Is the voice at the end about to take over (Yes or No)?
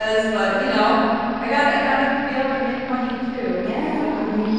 Yes